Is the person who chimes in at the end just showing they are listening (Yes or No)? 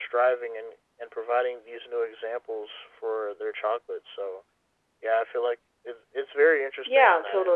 No